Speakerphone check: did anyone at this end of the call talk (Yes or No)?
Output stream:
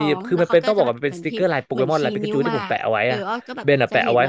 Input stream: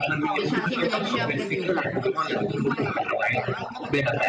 Yes